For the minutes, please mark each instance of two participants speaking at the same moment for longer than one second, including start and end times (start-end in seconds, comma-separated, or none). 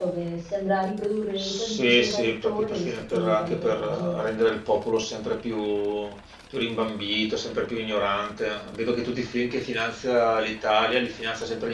1.4-4.3